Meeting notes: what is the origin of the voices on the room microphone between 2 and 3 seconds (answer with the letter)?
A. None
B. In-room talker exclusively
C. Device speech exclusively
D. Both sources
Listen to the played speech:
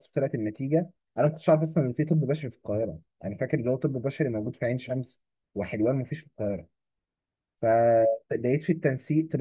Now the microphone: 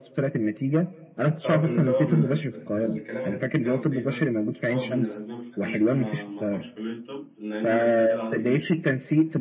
D